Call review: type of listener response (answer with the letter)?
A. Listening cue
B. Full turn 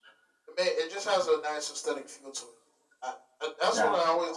A